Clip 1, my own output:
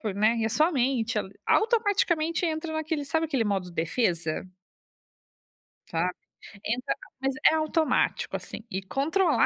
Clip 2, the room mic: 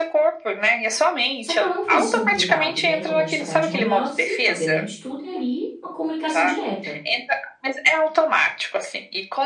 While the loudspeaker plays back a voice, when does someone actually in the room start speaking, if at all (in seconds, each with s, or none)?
1.4 s